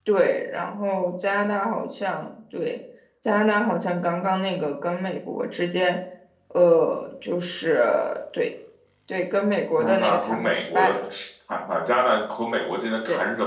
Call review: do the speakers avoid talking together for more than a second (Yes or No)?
No